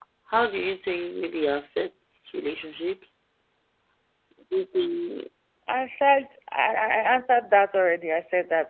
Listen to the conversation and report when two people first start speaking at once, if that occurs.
none

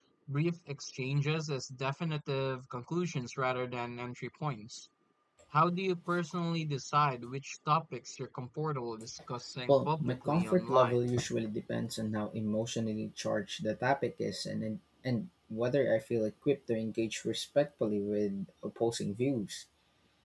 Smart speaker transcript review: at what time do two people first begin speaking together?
9.7 s

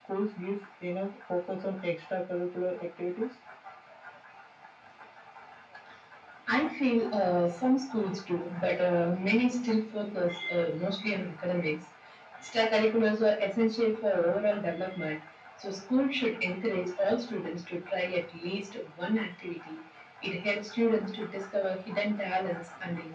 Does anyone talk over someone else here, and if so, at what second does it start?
none

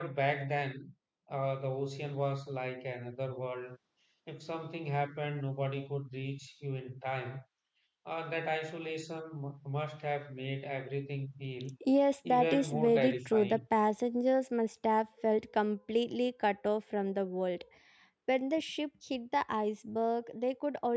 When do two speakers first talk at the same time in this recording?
12.2 s

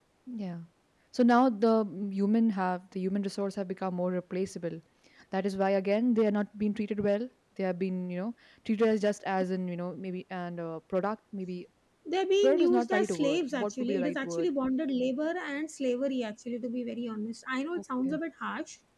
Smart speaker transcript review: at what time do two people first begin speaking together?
12.4 s

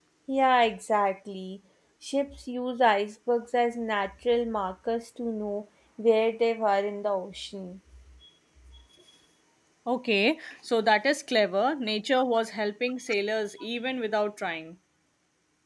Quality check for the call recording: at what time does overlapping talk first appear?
none

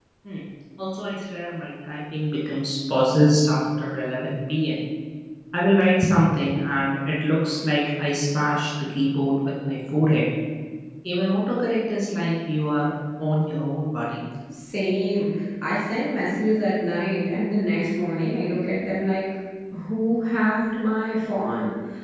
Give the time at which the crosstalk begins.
none

